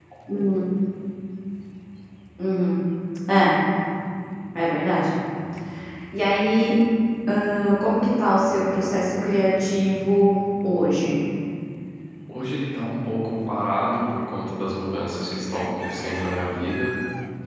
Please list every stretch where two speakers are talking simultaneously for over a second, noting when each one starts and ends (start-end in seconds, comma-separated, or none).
none